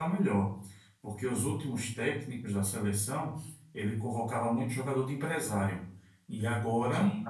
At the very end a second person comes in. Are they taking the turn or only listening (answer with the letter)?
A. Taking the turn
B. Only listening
B